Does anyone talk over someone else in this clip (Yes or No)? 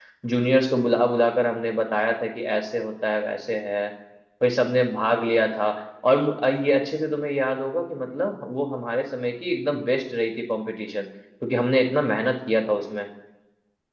No